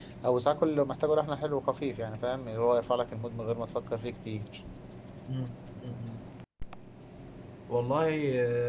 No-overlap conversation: Yes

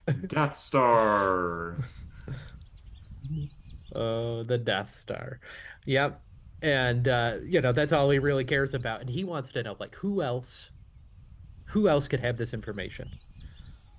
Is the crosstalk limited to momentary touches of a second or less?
Yes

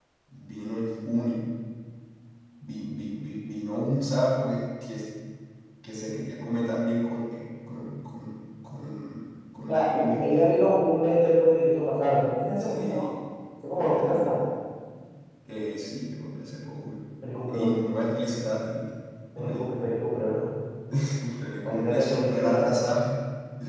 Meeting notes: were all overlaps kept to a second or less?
No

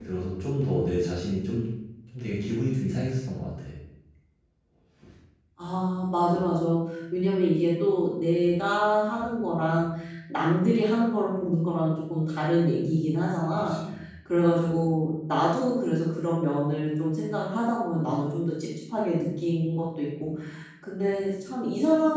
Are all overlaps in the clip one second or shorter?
Yes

